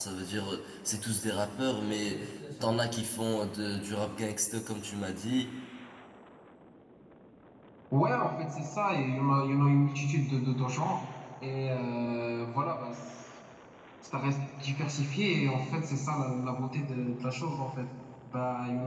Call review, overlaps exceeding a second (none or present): none